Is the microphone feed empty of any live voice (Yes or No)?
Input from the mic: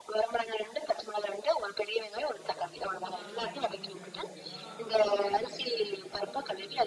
No